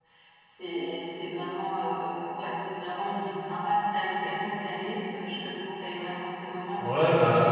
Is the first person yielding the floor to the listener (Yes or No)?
Yes